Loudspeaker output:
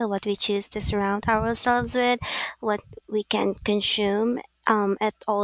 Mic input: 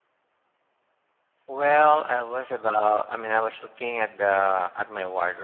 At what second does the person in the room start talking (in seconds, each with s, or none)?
1.4 s